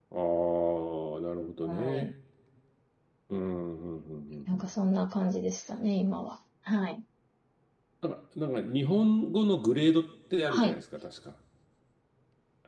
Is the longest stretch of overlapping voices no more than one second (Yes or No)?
Yes